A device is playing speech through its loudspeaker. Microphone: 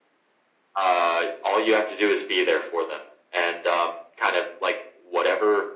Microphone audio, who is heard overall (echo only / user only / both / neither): echo only